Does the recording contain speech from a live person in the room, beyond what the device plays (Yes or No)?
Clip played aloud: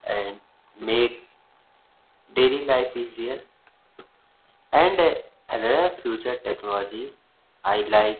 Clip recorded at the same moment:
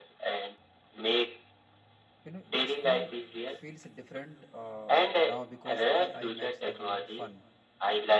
Yes